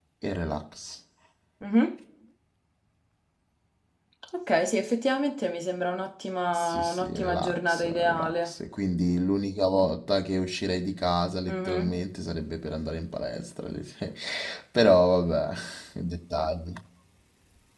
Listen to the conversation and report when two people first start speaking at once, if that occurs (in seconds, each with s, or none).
6.5 s